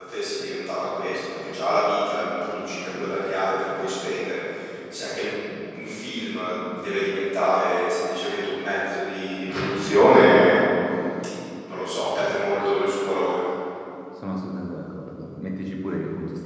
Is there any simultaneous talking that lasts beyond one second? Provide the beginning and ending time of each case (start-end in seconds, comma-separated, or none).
none